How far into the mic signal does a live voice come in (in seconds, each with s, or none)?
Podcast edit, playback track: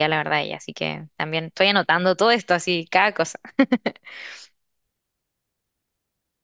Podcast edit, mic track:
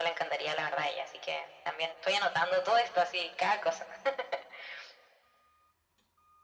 none